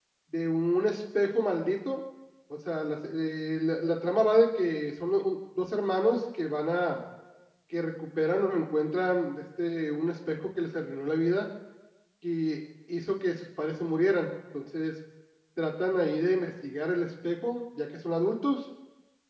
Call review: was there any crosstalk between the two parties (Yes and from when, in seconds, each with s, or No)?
No